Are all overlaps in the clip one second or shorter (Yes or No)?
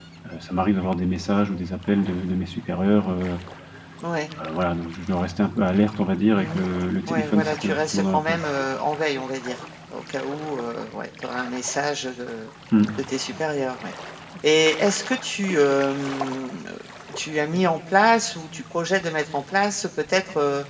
No